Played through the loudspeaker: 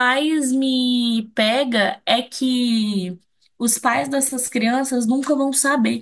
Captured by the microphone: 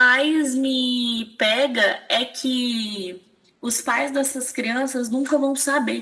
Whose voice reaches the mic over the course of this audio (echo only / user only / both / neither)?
echo only